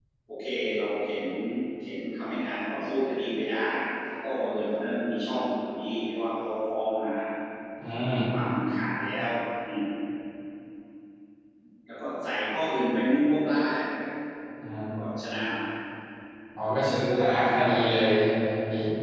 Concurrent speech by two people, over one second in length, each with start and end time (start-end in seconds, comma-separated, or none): 16.9-18.1